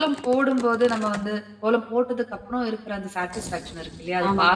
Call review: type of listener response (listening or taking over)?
listening